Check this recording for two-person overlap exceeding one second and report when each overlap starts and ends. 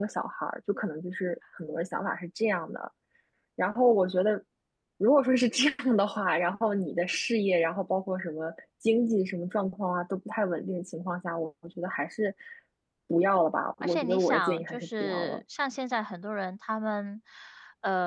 13.8-15.4

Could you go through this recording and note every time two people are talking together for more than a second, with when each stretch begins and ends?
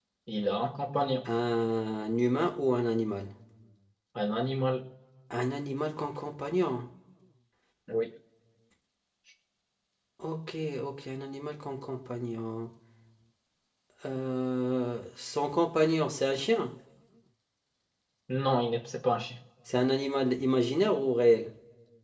none

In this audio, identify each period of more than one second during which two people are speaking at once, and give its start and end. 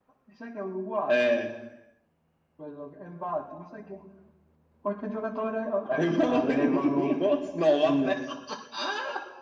5.9-7.1

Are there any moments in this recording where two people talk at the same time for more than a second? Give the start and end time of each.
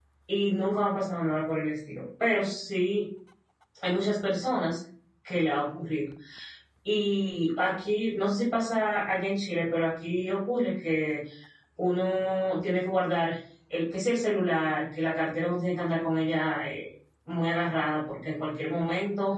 none

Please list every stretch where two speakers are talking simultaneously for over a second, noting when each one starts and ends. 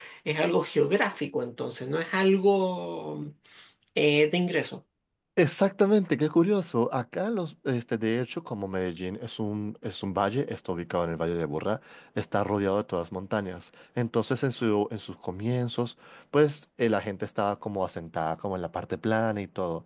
none

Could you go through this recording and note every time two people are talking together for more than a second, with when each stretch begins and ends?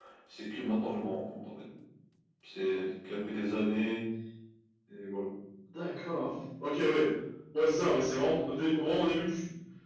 none

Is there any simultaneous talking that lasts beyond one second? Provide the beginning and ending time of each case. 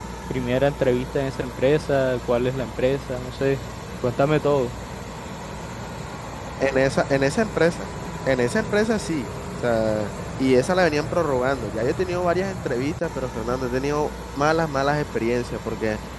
none

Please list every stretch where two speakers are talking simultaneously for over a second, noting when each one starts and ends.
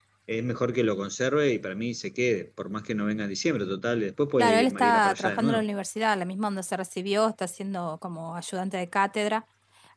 4.4-5.6

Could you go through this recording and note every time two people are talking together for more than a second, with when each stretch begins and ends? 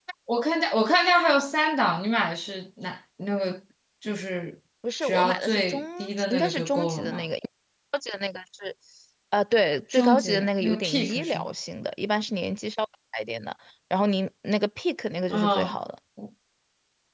5.0-7.2, 9.9-11.5

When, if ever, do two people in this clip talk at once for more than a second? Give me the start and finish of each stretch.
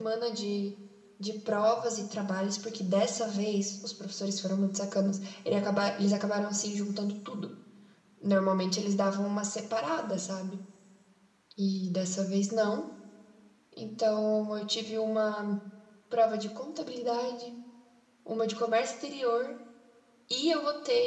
none

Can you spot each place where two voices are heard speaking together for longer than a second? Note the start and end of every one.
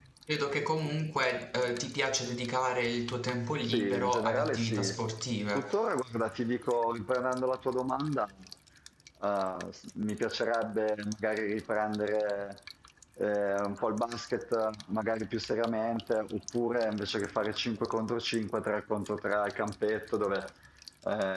3.7-5.0

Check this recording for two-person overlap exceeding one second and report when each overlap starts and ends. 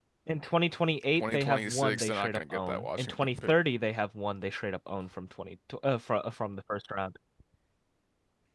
1.1-3.5

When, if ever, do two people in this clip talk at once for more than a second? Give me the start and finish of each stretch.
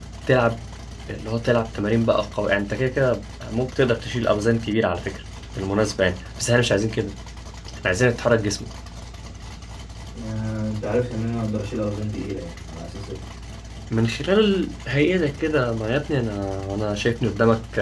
none

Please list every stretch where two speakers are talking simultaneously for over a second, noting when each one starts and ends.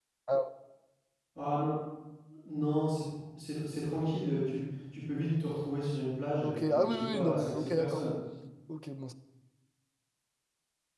6.4-8.0

